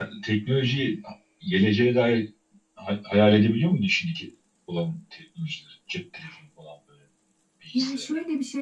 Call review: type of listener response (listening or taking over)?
taking over